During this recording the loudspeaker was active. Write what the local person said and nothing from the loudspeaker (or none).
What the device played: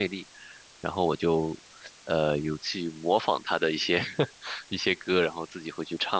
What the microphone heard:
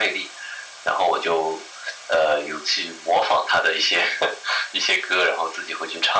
none